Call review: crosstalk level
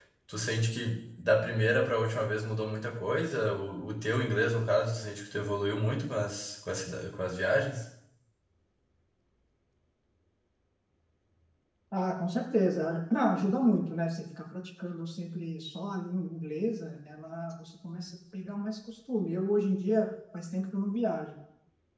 none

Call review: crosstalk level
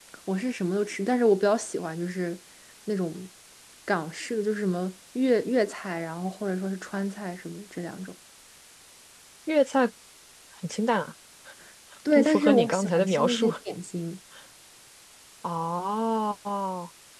present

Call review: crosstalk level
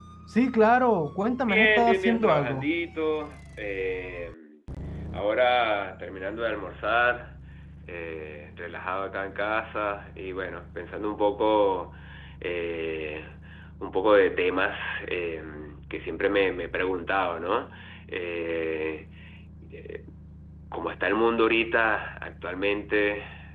present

